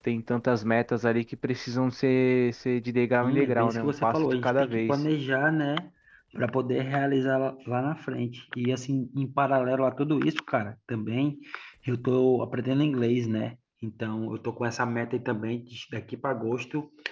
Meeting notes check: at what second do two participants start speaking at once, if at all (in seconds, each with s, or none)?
3.2 s